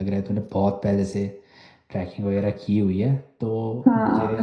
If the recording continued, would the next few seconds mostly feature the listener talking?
Yes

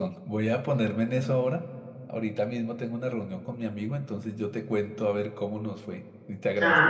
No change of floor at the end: Yes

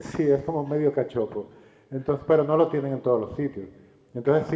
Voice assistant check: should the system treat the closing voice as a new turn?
No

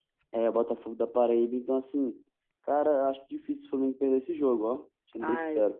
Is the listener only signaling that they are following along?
No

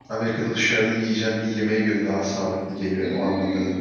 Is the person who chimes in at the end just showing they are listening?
No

